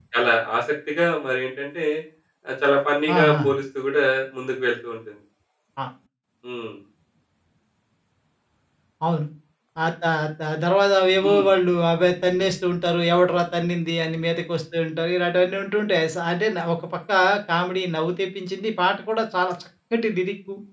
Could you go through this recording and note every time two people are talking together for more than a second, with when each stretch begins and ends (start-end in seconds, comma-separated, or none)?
none